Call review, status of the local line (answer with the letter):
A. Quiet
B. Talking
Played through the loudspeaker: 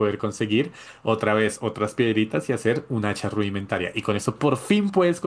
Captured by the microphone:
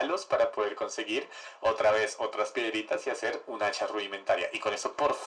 A